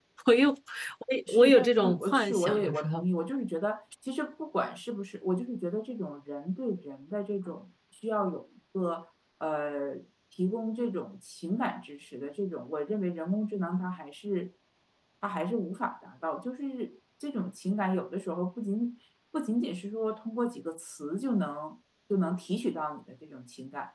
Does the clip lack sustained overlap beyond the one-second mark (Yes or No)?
No